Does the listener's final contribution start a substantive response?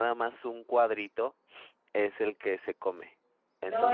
No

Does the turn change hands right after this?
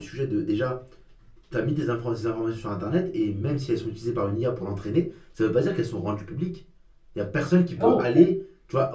No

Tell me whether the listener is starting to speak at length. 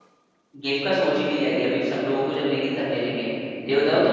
No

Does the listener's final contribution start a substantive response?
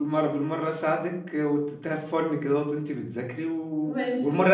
No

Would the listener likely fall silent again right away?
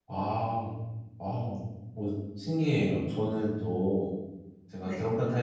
Yes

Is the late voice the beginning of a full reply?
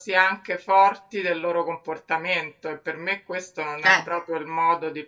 No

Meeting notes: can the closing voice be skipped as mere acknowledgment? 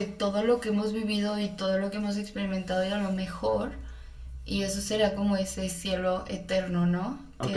No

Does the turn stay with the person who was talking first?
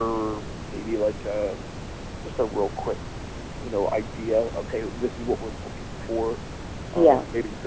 Yes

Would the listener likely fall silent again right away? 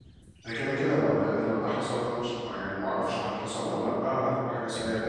No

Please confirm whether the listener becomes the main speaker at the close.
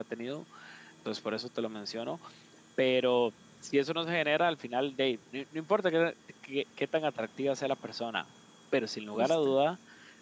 No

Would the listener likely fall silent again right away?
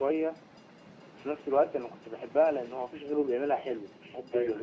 Yes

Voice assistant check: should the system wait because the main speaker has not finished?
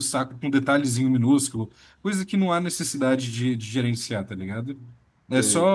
Yes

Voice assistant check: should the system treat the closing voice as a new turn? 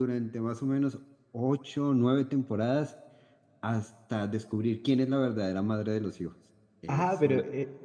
Yes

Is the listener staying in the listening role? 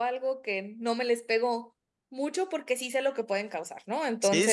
No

